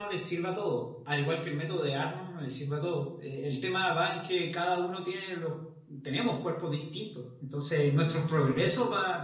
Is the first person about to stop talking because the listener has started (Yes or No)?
No